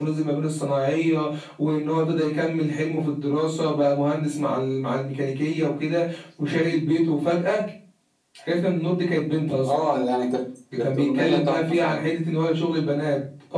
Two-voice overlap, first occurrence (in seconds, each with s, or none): 10.7 s